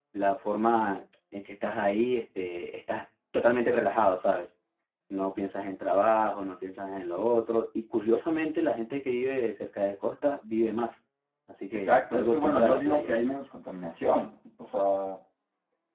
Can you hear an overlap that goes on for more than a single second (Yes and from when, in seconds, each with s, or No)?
Yes, from 11.7 s